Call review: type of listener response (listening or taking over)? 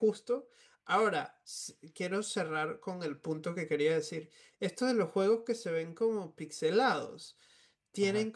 listening